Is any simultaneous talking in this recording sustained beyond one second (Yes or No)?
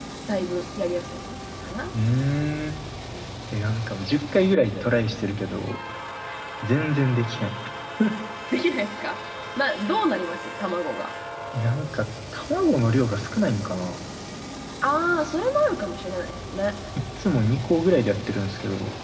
No